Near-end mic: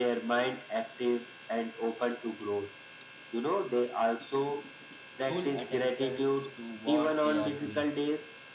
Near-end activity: present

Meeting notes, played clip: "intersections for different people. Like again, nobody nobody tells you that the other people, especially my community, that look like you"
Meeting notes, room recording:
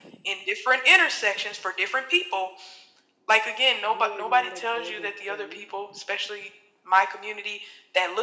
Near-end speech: present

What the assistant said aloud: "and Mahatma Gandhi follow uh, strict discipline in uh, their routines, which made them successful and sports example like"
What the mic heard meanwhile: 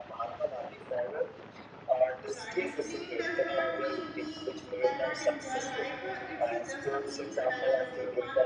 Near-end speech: present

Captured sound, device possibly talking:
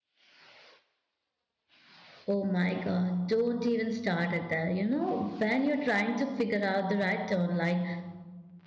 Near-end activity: present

